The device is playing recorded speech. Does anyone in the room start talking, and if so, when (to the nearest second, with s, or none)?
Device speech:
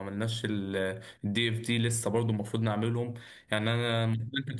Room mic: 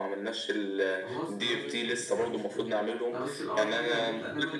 1 s